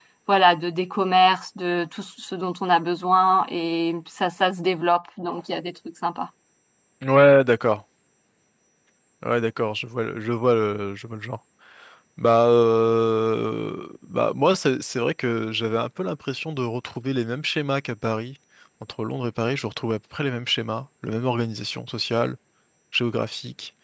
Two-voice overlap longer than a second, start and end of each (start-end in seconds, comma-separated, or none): none